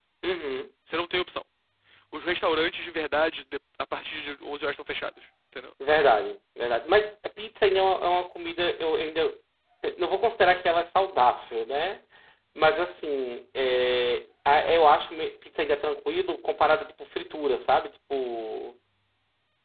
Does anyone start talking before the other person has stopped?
No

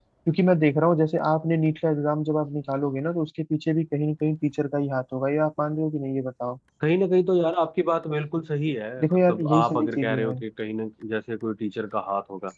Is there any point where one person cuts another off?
Yes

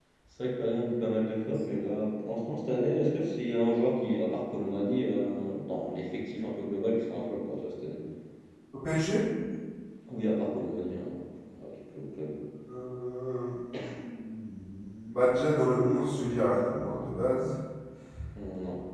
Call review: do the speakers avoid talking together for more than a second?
Yes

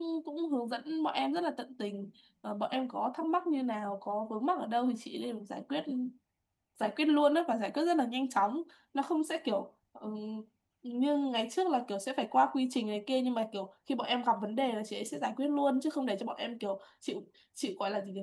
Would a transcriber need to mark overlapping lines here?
No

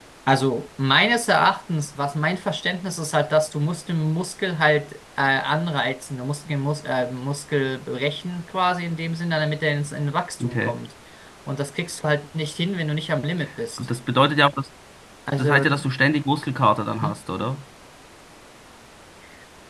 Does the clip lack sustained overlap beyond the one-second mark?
Yes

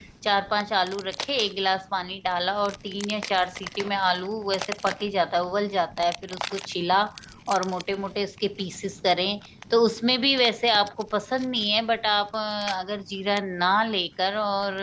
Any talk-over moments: No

